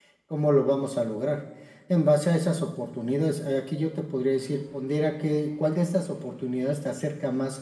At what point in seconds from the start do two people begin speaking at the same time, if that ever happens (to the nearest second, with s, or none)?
none